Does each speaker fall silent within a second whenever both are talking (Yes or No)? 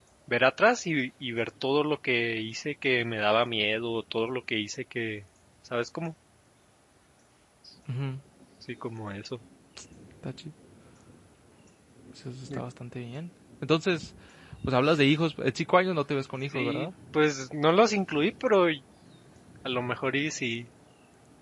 Yes